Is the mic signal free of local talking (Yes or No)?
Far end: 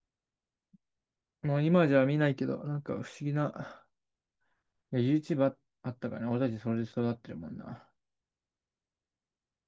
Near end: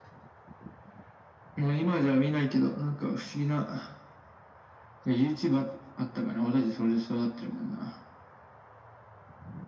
Yes